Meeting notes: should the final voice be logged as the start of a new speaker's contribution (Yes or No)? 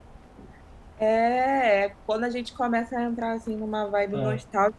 No